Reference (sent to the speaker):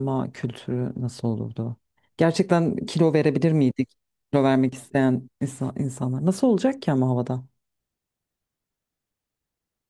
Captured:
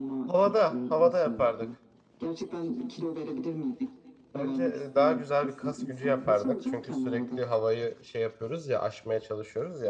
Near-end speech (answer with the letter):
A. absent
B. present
B